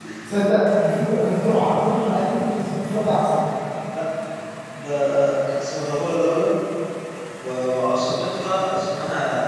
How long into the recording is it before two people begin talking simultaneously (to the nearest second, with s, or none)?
none